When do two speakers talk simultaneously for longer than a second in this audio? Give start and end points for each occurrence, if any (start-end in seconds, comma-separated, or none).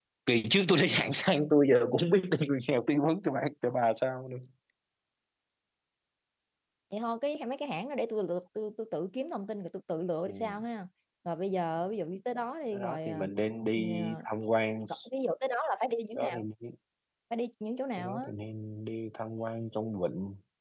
none